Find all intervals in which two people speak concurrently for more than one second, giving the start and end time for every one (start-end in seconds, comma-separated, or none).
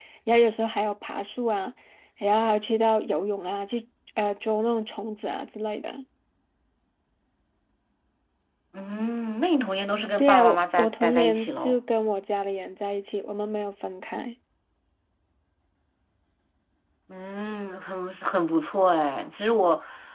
10.2-11.8